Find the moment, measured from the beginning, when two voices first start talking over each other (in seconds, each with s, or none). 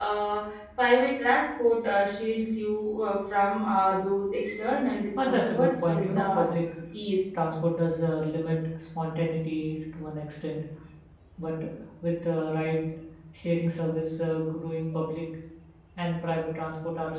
5.2 s